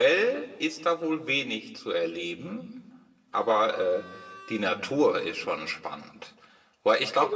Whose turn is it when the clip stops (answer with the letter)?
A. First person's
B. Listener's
B